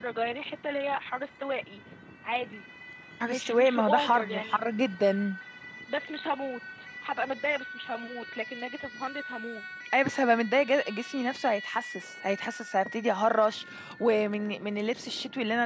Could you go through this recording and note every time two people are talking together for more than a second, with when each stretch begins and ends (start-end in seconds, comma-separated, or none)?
3.3-4.6